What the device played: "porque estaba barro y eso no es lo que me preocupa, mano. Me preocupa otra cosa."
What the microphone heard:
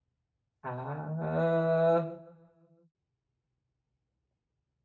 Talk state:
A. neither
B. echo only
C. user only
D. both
C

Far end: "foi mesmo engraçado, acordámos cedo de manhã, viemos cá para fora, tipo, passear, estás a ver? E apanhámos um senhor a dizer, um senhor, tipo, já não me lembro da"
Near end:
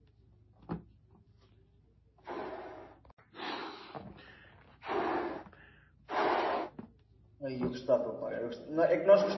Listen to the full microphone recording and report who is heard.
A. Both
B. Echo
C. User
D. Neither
C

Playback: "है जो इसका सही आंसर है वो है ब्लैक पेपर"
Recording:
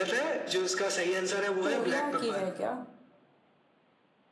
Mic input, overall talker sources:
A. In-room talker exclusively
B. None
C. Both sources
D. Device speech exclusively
C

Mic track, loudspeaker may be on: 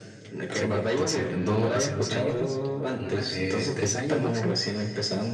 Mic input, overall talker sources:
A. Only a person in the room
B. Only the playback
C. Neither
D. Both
D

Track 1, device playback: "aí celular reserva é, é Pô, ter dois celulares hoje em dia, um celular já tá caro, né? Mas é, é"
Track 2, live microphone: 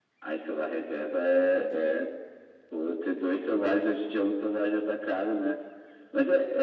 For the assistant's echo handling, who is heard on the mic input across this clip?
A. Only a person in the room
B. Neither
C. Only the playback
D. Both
C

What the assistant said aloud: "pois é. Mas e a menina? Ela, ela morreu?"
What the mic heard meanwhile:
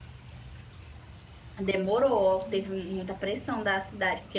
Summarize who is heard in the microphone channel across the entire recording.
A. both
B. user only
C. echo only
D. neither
B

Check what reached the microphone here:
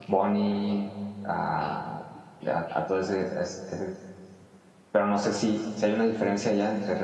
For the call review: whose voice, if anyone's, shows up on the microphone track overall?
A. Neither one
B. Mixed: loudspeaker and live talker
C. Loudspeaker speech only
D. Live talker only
D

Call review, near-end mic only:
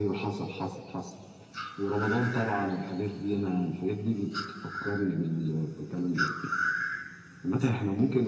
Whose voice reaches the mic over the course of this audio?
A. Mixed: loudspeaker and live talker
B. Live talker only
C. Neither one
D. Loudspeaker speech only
D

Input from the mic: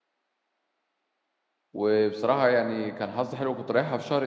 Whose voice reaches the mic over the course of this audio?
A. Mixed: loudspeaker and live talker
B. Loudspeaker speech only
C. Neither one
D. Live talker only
D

